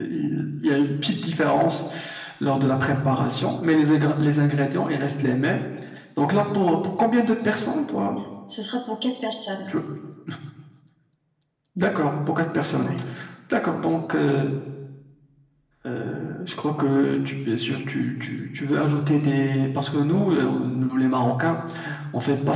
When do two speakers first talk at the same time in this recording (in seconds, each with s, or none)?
none